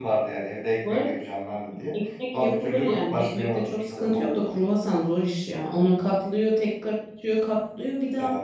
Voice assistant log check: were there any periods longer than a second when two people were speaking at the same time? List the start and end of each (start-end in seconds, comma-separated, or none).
2.3-4.4